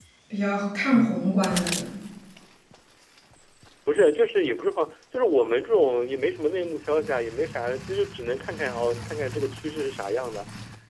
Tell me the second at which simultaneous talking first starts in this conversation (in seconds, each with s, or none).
none